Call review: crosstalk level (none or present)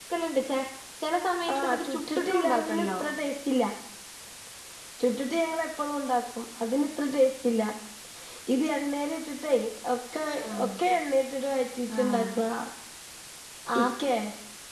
present